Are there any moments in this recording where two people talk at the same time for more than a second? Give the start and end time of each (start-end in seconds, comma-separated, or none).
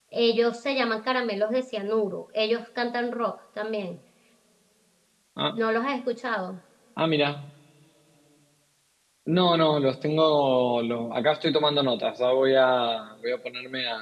none